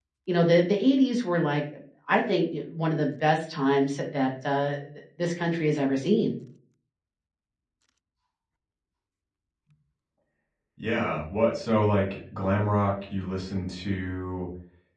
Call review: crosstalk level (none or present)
none